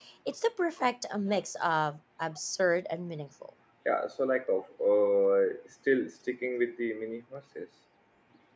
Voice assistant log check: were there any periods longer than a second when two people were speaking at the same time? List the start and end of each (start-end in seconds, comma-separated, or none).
none